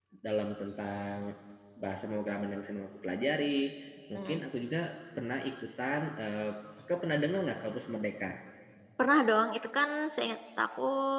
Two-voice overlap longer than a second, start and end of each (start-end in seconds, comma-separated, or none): none